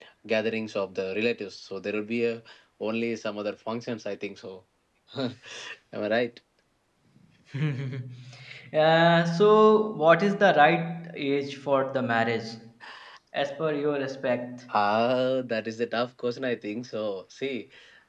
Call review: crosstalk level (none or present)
none